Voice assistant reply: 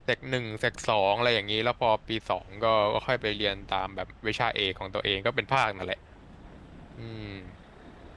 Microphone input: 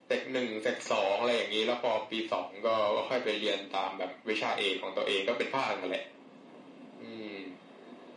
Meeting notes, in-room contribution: none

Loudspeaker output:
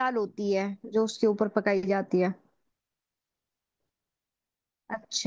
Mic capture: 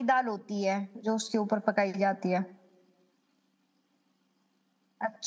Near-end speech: none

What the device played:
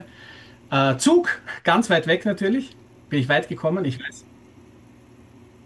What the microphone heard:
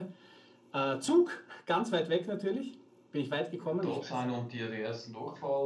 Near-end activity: present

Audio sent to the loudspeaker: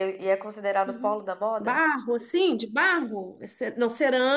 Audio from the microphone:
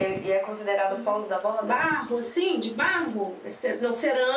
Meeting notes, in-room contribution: none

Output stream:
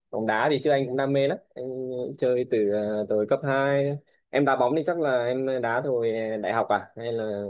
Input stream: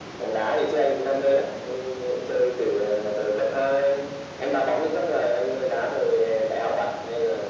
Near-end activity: none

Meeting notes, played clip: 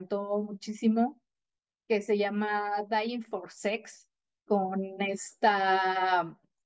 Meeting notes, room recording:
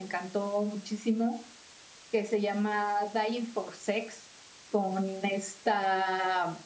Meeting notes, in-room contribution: none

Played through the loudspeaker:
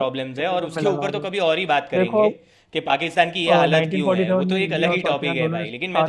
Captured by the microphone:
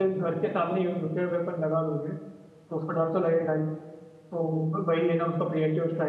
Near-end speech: present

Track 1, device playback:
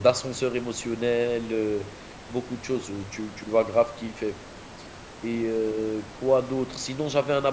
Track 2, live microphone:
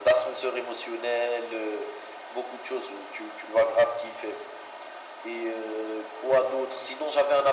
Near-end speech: none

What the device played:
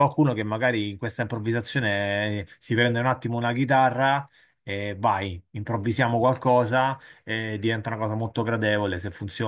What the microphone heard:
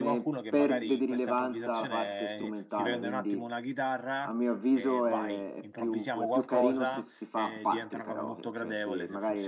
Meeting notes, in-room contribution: present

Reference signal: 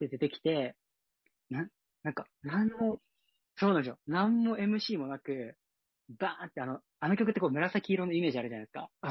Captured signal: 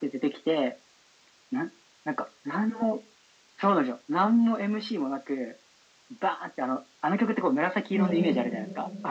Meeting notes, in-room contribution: present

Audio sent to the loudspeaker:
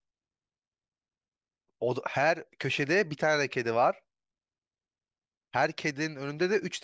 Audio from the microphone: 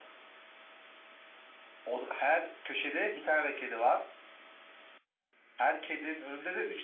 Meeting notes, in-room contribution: none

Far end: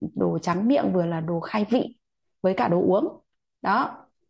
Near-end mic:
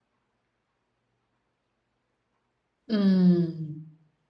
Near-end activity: present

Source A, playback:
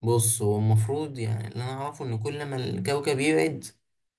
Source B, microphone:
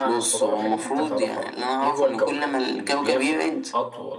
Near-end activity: present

